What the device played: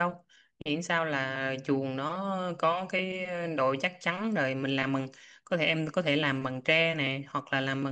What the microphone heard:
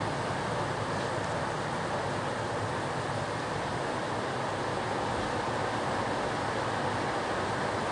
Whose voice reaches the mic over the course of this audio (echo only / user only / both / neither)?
neither